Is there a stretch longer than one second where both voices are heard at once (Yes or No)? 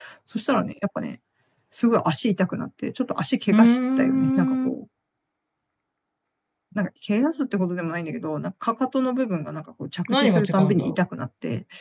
Yes